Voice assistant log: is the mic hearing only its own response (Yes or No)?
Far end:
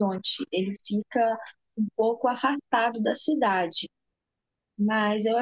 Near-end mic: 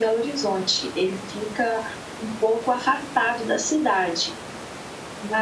Yes